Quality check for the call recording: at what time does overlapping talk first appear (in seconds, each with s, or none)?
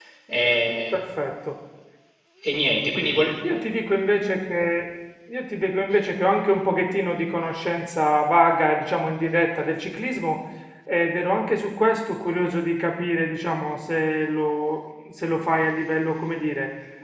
none